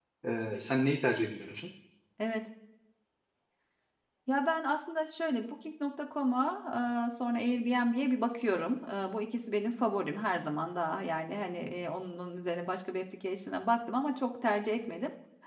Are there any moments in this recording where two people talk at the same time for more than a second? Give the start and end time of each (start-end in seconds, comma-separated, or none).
none